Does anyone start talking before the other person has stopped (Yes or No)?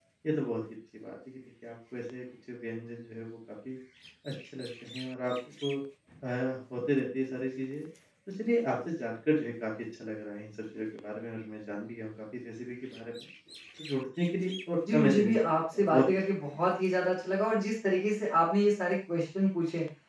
Yes